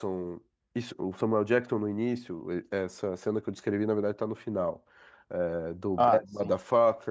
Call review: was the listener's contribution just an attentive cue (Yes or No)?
Yes